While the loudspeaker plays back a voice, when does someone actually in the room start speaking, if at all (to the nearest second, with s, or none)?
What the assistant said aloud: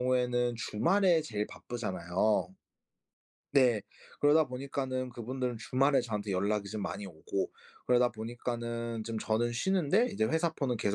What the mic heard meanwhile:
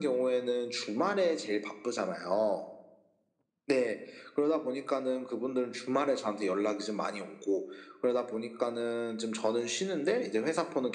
none